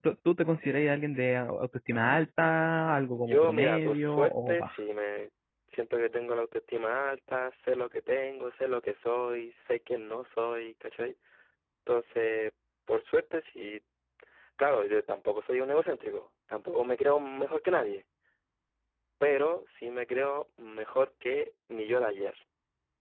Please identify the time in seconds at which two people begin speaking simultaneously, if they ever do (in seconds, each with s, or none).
3.1 s